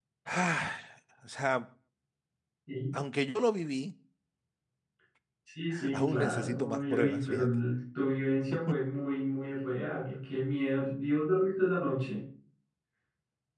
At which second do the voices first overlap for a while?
5.9 s

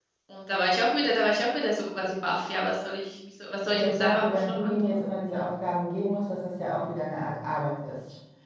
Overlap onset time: 3.7 s

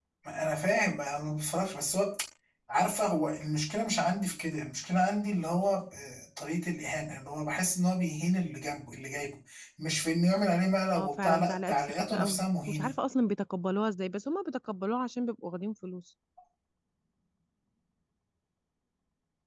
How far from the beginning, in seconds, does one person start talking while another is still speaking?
11.0 s

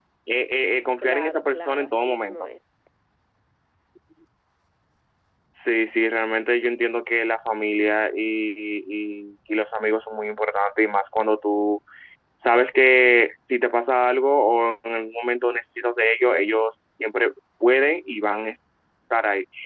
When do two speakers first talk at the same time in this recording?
1.0 s

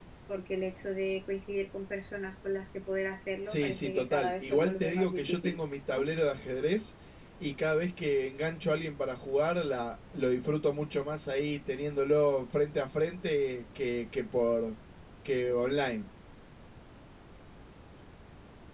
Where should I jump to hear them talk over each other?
3.5 s

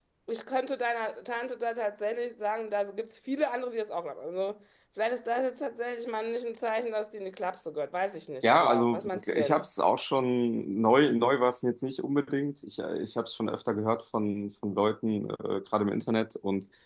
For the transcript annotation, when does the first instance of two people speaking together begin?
8.4 s

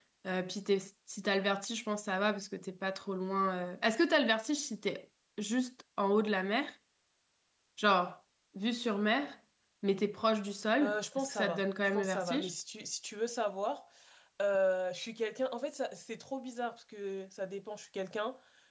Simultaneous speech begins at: 10.8 s

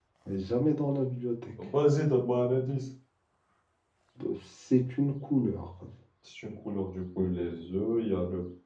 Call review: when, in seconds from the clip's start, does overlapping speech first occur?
none

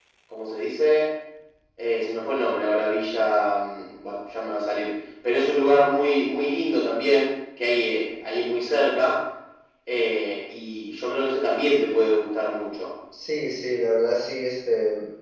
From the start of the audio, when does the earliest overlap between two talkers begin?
none

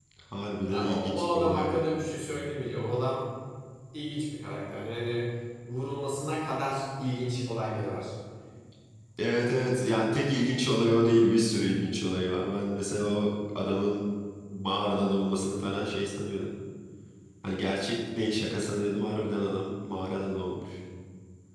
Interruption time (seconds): 0.6 s

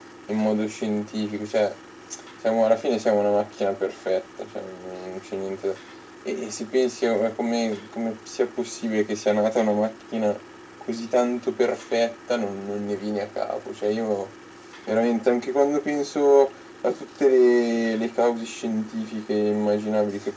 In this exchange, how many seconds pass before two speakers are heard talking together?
none

